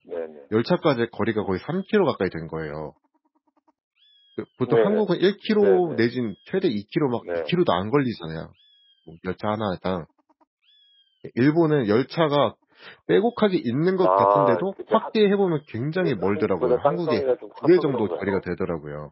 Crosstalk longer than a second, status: present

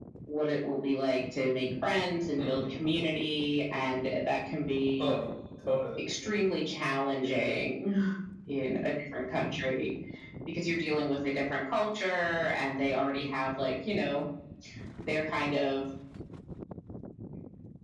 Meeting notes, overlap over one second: none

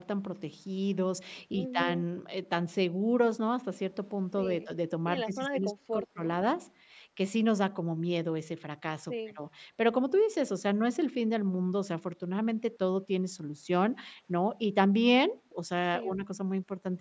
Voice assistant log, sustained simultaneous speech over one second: present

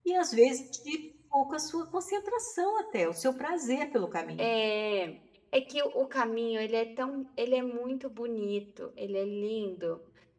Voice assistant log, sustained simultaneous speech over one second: none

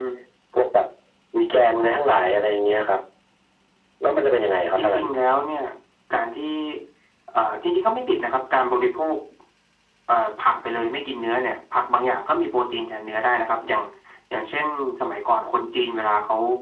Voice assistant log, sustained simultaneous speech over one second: none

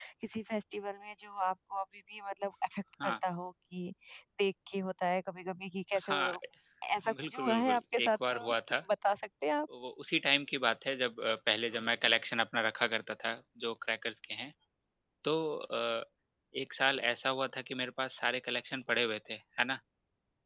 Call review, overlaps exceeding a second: present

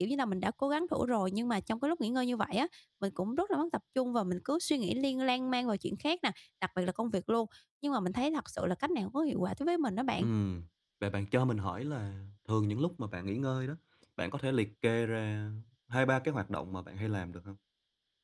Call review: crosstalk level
none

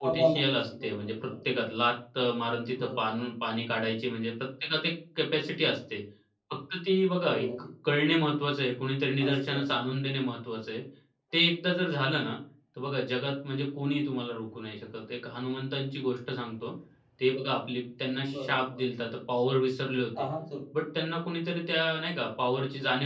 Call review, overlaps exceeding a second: present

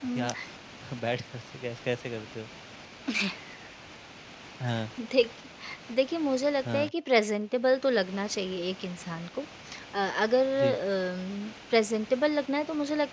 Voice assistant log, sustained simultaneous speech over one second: none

